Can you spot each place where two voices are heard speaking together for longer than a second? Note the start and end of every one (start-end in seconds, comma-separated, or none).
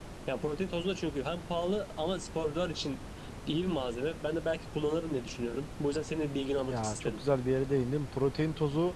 none